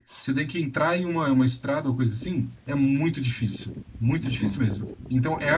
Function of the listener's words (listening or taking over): listening